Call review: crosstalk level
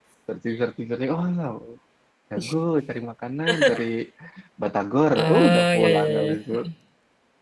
present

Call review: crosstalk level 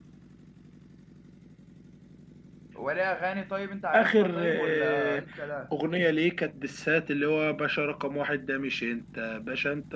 present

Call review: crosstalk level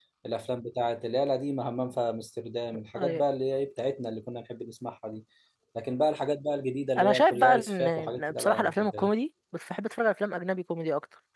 present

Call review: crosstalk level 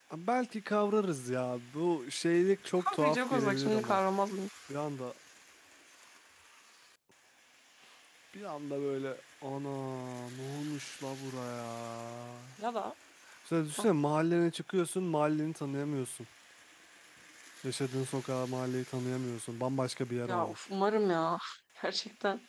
present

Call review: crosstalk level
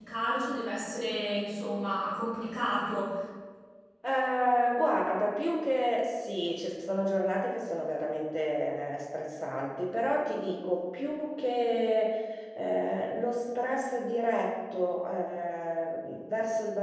none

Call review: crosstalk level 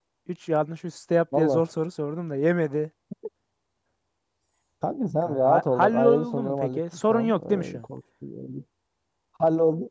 present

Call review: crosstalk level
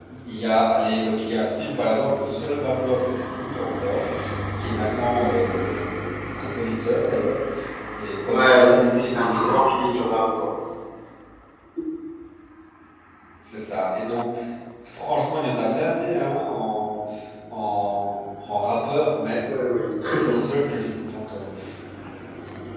present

